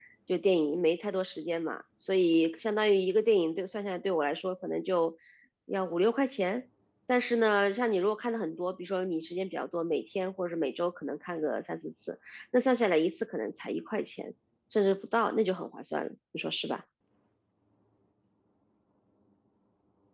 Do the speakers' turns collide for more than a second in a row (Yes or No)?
No